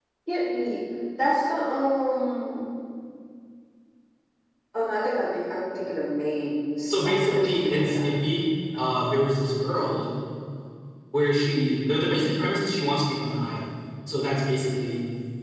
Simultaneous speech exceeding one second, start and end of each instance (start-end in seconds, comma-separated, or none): 6.9-8.1